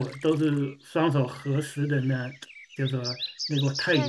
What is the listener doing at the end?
taking over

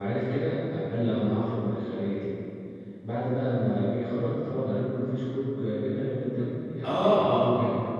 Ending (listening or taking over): taking over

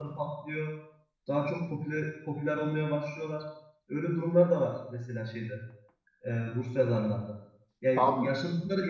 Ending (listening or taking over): listening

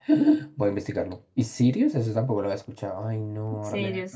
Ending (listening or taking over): taking over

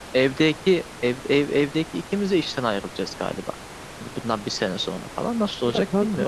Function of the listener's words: taking over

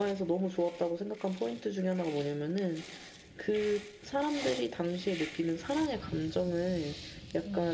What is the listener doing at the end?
listening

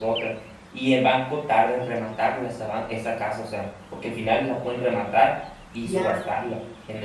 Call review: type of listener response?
listening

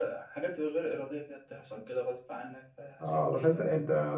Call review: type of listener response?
taking over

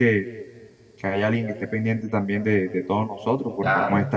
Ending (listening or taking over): listening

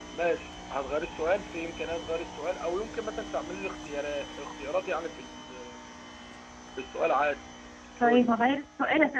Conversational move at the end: taking over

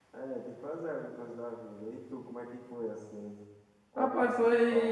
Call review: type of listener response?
taking over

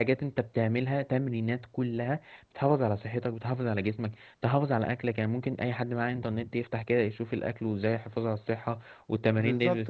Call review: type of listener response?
taking over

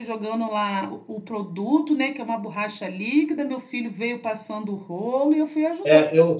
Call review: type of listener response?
taking over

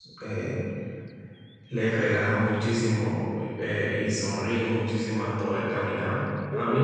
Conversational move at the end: listening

